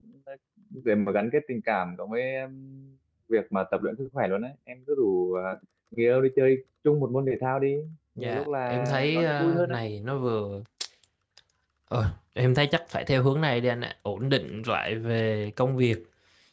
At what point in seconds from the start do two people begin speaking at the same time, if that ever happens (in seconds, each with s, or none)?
8.2 s